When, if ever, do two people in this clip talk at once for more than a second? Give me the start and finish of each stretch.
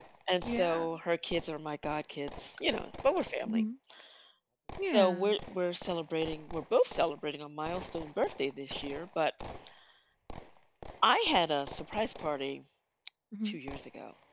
none

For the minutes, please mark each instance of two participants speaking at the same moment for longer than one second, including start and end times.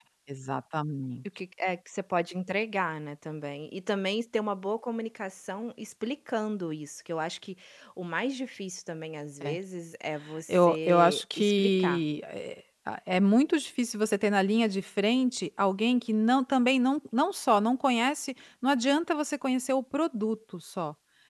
10.5-12.0

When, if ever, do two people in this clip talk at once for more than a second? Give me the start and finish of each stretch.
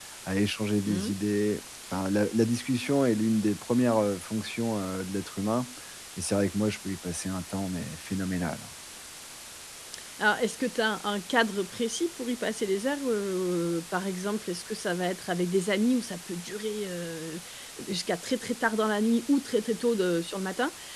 none

